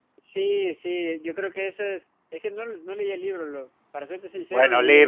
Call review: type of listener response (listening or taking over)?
taking over